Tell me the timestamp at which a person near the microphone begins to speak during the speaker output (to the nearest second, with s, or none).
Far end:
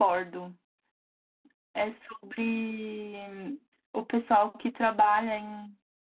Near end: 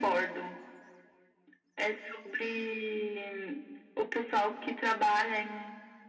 none